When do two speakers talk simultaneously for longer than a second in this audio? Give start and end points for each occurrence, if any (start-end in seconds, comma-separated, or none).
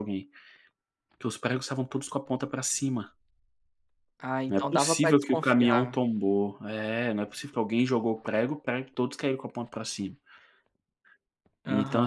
4.5-6.0